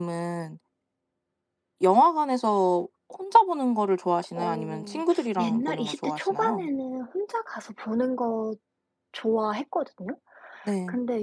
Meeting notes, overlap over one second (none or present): present